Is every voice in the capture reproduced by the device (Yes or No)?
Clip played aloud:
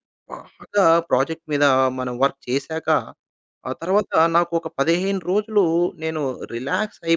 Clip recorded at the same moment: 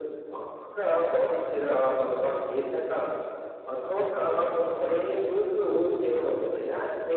Yes